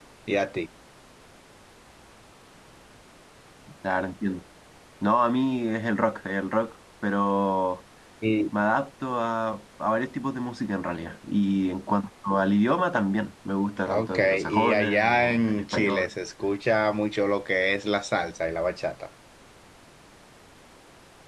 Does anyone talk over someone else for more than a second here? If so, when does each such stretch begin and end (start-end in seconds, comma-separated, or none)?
13.9-16.1